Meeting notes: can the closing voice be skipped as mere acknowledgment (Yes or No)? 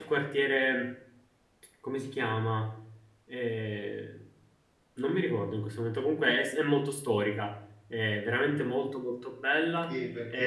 No